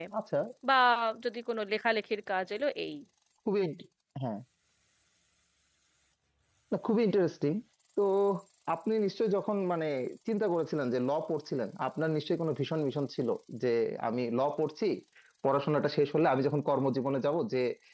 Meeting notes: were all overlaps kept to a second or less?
Yes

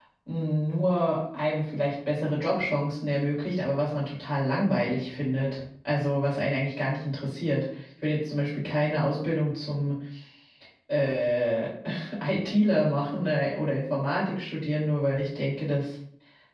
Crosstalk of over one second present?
No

